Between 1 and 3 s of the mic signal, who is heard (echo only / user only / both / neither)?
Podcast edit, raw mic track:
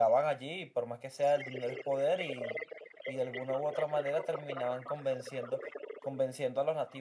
both